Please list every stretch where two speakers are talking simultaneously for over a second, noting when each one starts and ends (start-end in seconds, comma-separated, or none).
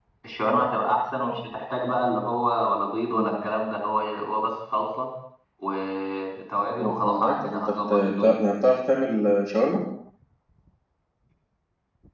6.8-8.3